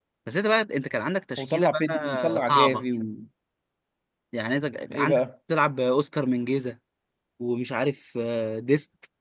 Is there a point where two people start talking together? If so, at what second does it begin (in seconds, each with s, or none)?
1.4 s